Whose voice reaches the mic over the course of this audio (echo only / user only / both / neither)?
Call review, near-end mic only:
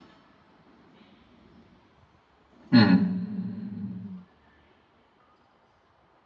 user only